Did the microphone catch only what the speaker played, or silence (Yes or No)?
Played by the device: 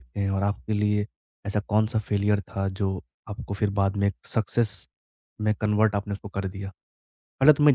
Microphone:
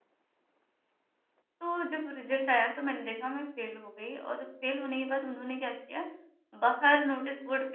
No